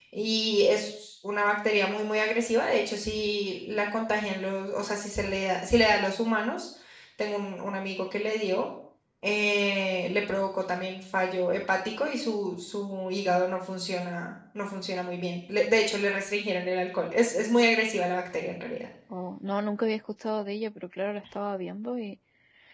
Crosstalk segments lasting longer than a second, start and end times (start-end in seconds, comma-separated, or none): none